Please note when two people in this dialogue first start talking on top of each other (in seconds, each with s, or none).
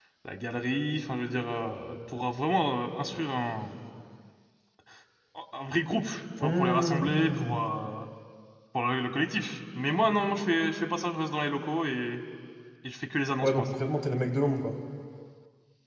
6.4 s